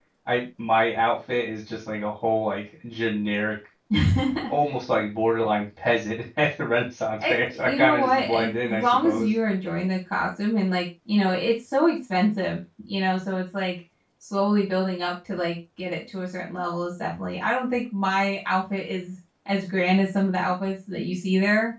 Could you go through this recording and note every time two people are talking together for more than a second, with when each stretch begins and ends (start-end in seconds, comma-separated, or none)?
7.2-9.3